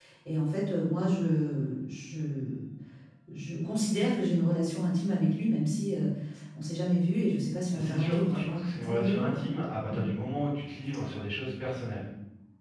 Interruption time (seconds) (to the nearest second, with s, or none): 8 s